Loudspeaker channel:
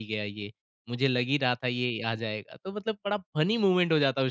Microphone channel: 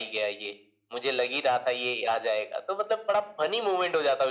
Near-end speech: none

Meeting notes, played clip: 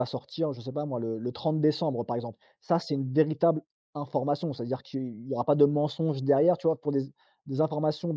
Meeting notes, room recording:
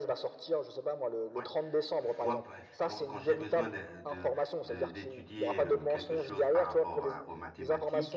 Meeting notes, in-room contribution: present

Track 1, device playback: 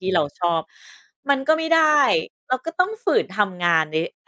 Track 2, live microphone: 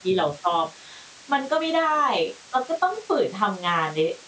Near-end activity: none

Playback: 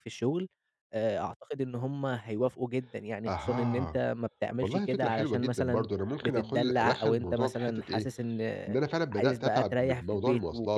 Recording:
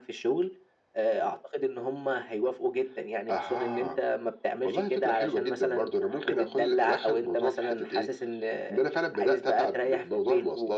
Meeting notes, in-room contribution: none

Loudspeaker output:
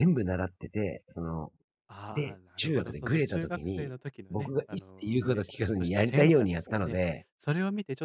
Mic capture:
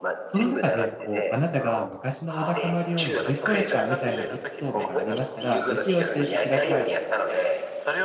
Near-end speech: present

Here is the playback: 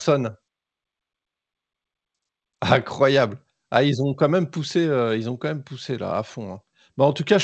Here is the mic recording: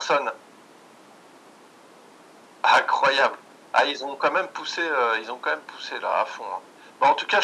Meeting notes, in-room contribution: none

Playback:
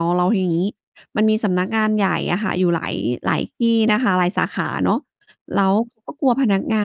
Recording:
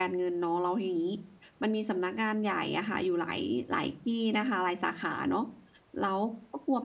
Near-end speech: none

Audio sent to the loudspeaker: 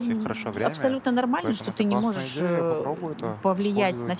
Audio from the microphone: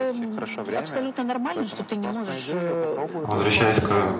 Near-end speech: present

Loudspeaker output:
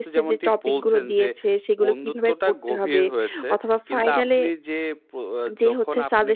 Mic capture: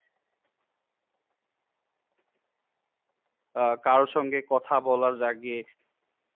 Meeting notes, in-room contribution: present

